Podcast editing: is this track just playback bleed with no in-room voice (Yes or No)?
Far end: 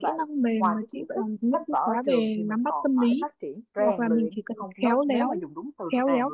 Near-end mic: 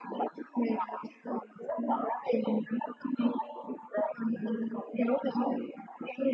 Yes